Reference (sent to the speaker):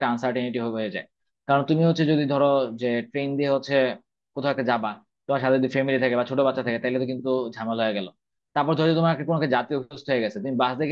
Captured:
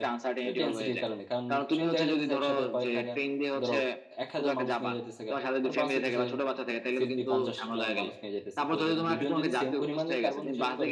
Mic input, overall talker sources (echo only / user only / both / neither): both